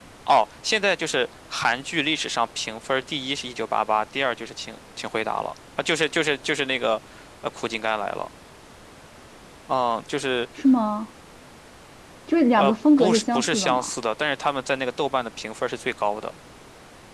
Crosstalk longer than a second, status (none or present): present